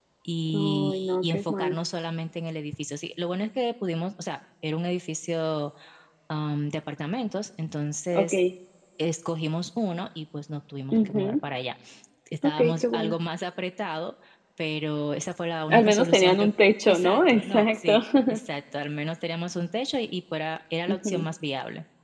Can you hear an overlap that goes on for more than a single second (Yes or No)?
Yes